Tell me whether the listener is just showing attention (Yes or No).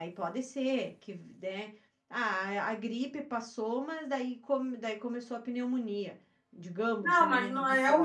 No